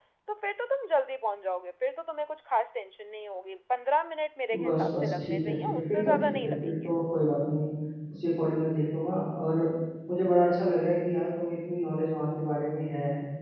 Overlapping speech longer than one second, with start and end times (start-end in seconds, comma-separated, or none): 4.6-6.7